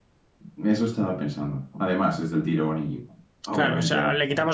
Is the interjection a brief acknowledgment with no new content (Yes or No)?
No